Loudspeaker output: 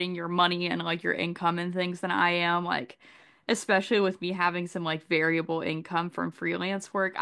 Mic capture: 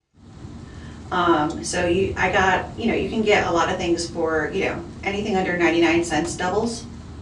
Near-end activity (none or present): present